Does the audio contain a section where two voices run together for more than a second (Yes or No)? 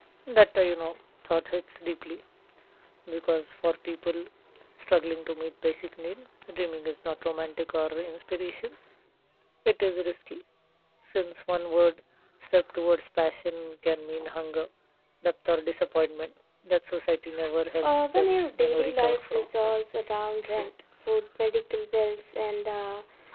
Yes